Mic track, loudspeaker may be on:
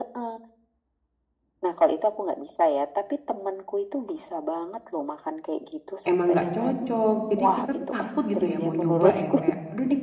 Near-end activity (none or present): present